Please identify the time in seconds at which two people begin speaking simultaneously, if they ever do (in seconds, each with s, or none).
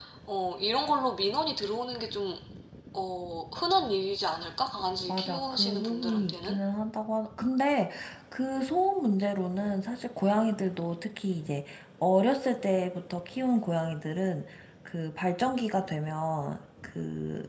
5.1 s